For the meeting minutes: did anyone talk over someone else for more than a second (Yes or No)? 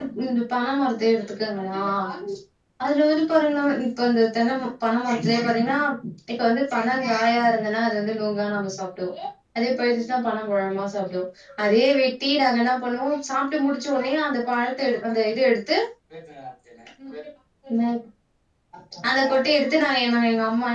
No